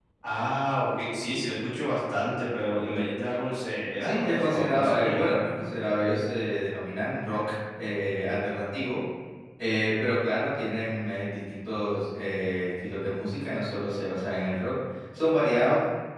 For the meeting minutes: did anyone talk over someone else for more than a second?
Yes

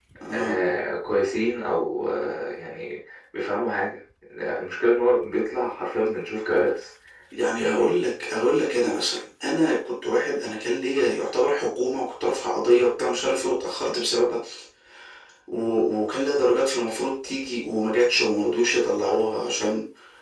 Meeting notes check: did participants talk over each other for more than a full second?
No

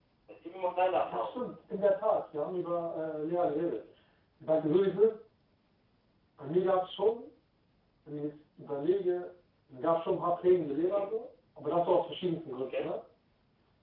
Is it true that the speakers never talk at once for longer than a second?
Yes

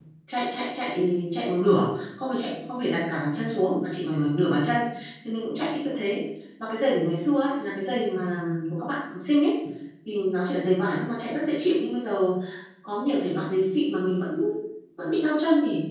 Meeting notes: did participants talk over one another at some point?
No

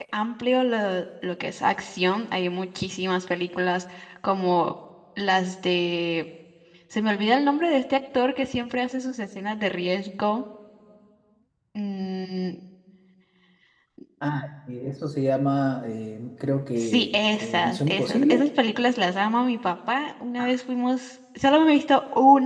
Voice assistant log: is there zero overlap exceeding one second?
No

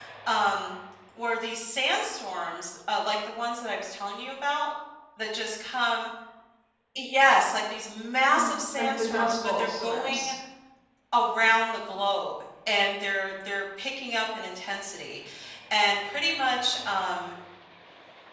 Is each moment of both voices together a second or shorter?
No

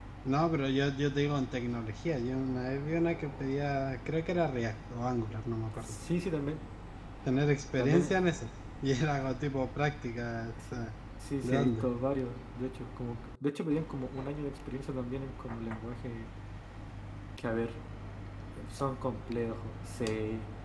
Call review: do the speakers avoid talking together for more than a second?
Yes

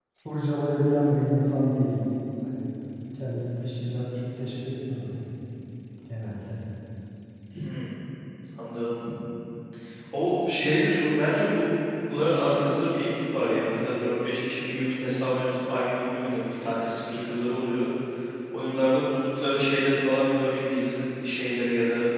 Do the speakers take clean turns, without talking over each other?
Yes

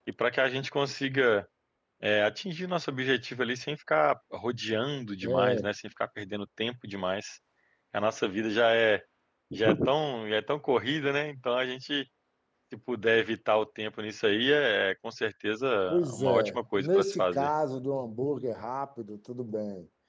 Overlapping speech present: Yes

